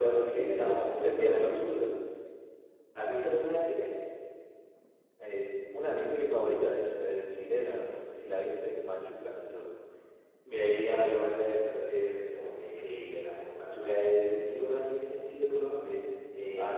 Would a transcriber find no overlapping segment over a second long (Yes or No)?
No